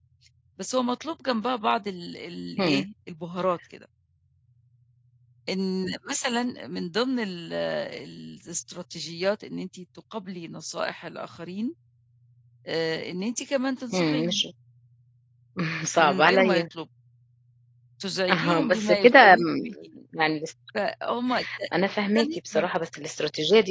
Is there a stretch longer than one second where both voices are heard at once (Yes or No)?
Yes